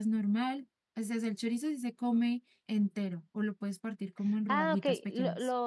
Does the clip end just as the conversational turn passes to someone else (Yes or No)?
Yes